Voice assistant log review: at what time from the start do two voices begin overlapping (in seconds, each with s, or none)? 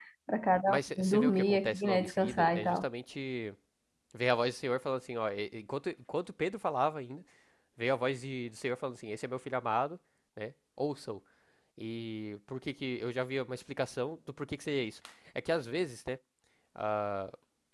0.7 s